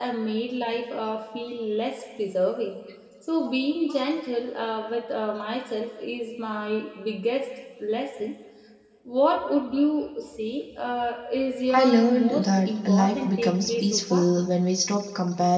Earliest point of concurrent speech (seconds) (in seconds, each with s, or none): 11.7 s